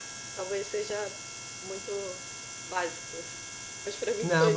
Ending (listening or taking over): taking over